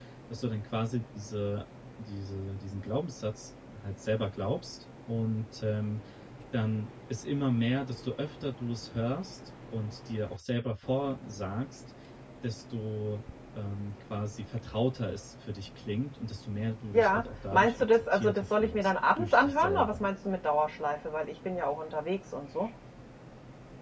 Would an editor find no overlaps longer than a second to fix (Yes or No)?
No